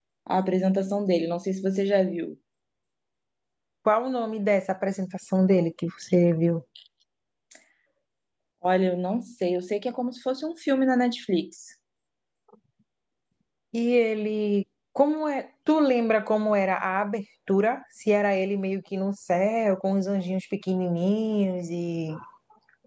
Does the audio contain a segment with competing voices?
No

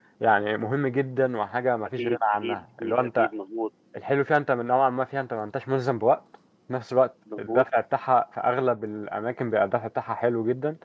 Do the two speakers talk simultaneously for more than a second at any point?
Yes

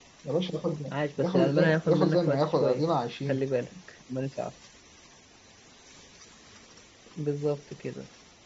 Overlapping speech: Yes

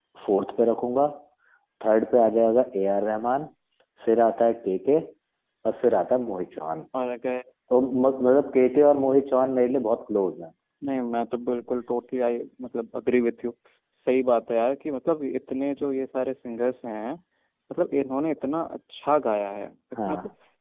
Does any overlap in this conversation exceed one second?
No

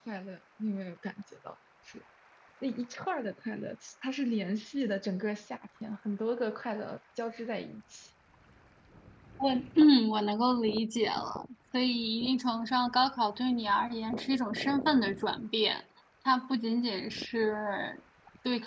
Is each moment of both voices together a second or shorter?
Yes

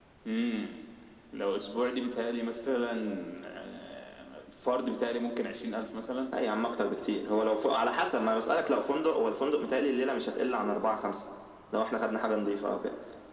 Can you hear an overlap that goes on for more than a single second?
No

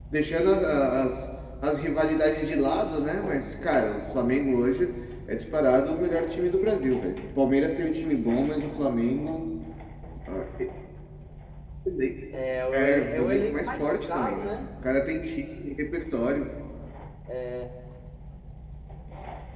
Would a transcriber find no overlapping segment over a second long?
No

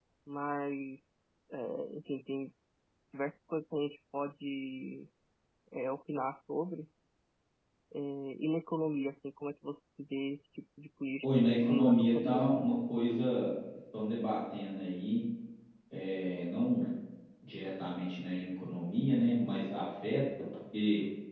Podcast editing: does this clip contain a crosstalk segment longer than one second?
Yes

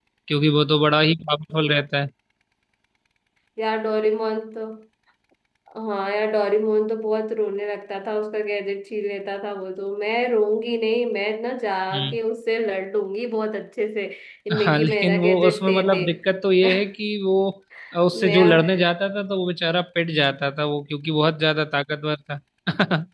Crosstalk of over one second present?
Yes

